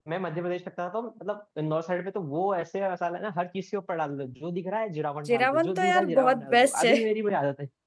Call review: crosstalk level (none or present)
present